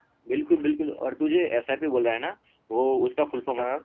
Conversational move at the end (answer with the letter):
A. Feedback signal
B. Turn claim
A